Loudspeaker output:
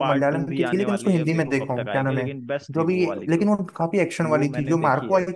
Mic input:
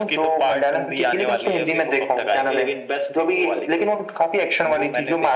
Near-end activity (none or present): none